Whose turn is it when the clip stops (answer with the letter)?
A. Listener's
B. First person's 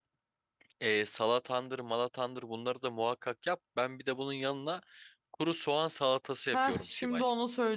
A